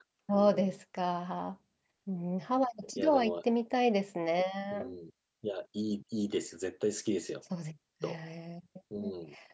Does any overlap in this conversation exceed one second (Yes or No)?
No